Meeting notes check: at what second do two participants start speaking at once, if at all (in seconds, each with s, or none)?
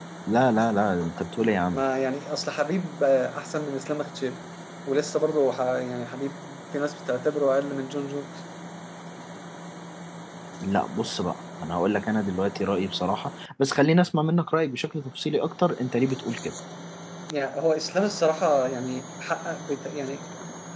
none